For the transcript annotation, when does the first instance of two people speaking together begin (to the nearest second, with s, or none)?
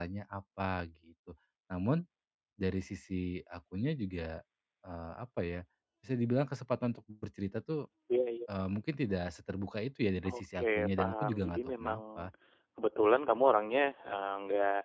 10 s